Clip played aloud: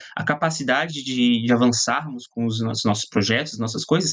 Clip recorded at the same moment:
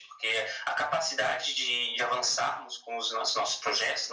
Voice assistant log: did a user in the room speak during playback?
No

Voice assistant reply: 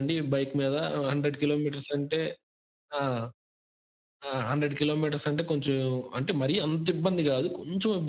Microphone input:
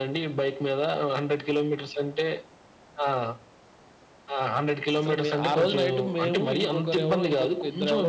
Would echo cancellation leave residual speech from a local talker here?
Yes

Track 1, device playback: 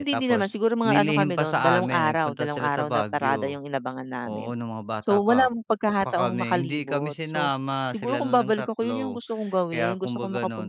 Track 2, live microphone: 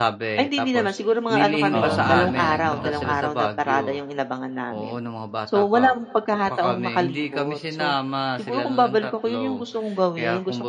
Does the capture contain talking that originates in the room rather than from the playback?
Yes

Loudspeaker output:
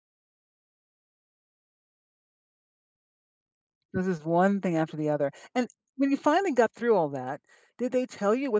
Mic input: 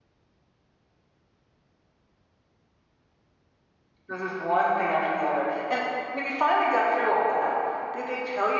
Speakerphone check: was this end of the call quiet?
Yes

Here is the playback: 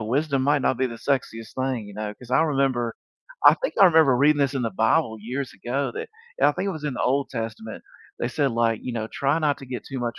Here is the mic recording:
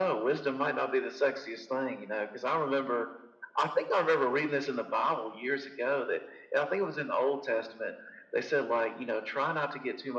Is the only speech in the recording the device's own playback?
Yes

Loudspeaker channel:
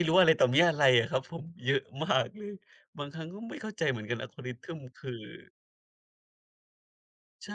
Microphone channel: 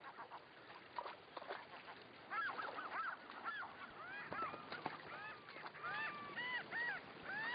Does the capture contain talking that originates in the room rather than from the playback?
No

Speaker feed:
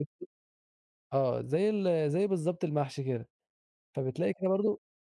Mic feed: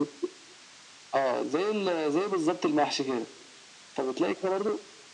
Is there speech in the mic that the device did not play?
No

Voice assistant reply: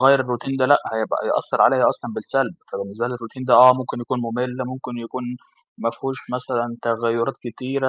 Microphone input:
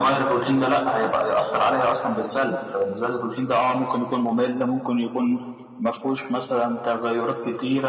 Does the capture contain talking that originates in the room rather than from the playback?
No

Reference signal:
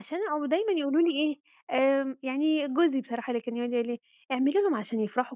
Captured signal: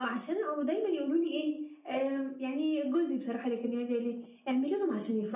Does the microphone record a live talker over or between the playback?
No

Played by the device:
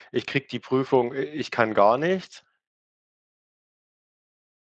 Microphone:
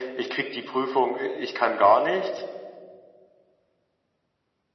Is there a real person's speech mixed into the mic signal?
No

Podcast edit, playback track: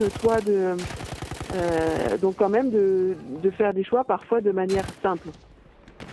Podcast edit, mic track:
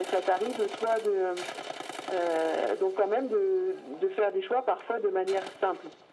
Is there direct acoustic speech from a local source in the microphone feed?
No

